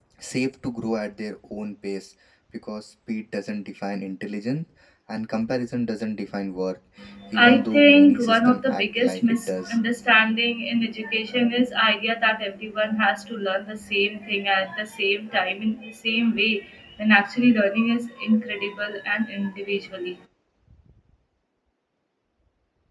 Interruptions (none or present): present